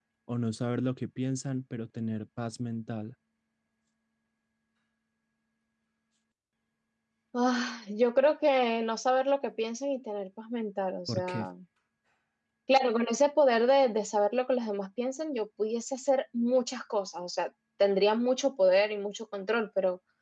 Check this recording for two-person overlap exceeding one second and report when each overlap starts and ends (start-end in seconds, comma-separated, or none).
none